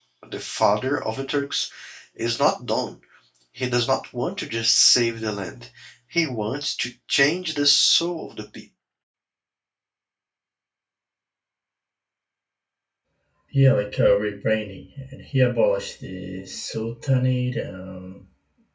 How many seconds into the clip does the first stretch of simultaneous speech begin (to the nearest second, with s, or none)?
none